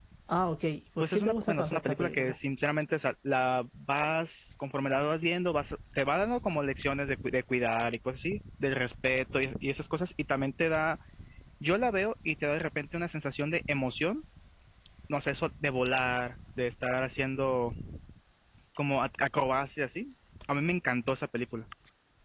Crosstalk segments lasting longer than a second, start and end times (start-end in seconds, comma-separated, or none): 1.0-2.3